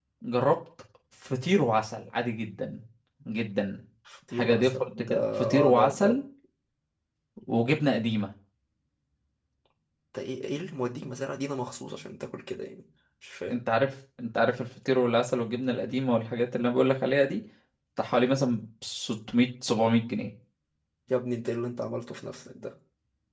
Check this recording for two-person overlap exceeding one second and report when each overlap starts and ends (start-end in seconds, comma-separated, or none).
4.3-6.2